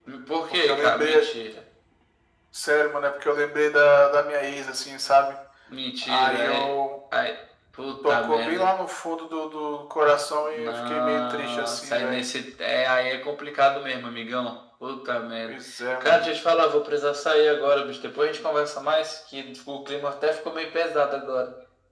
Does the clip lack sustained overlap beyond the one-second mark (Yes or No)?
No